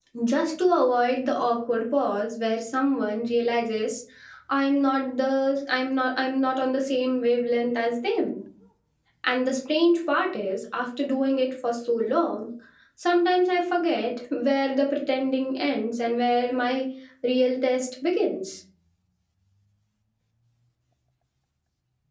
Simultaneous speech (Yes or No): No